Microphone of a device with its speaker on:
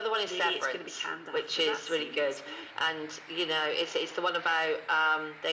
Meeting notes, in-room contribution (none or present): none